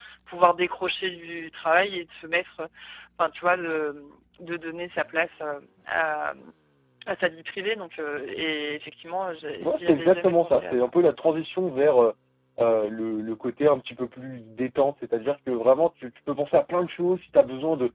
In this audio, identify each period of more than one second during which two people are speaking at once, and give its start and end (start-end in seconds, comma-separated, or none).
9.6-10.9